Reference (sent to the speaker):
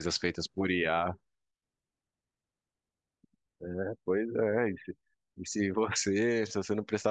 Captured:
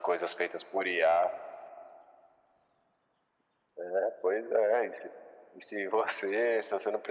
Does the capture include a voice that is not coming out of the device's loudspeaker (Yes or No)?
No